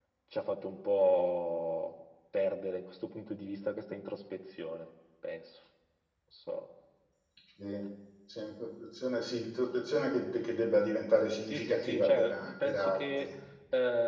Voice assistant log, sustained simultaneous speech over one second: present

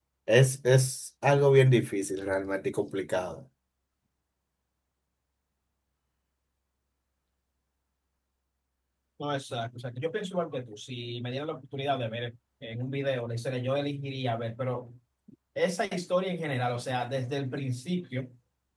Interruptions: none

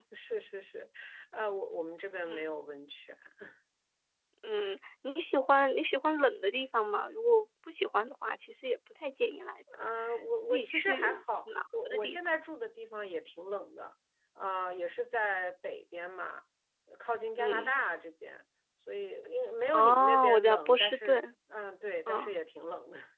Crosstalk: present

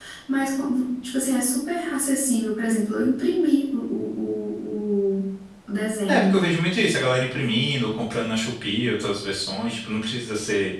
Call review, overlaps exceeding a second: none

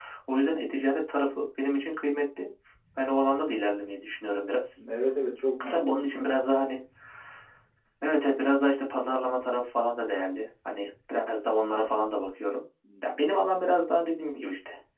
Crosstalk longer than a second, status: none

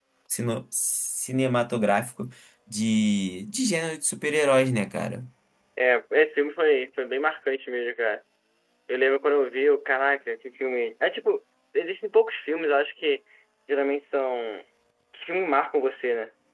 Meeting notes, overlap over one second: none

